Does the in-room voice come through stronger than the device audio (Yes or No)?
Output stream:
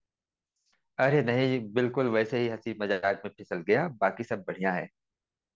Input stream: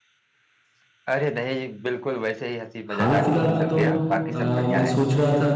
Yes